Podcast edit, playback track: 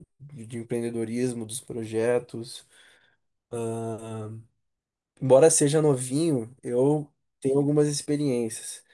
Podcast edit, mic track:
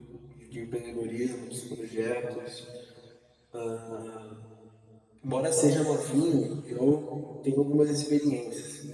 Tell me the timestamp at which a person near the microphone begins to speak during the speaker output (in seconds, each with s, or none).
none